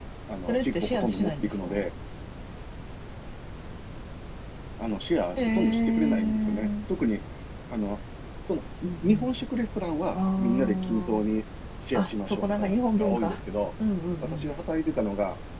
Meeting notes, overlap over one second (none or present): present